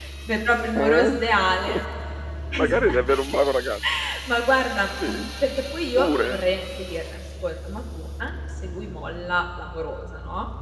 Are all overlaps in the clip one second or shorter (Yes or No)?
Yes